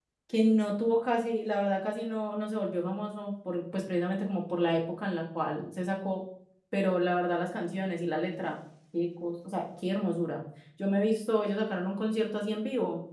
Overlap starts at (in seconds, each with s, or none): none